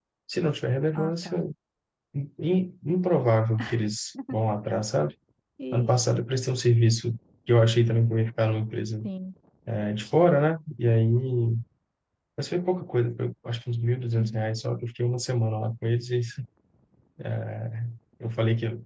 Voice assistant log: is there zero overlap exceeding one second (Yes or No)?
Yes